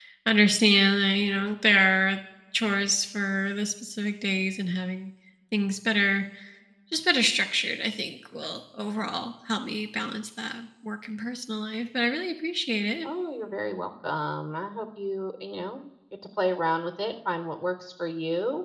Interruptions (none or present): none